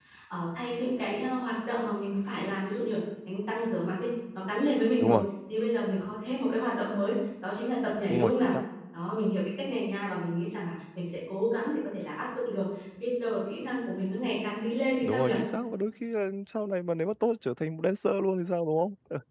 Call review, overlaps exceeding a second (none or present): none